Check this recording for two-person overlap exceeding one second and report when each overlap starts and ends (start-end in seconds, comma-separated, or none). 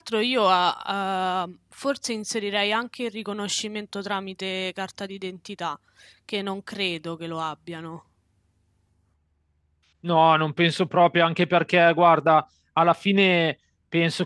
none